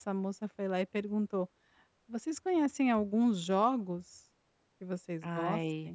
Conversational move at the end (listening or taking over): listening